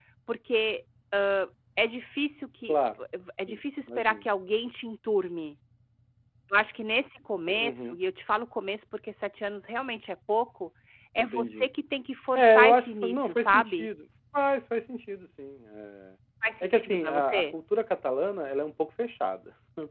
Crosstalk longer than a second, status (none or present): present